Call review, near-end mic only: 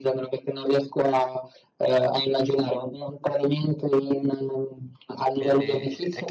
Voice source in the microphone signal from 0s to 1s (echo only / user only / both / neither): echo only